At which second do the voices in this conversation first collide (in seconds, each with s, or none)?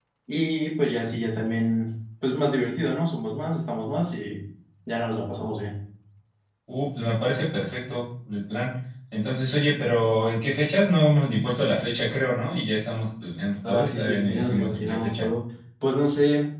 13.6 s